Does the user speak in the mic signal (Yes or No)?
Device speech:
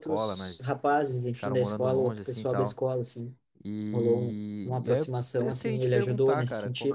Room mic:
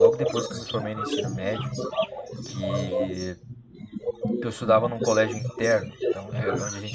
Yes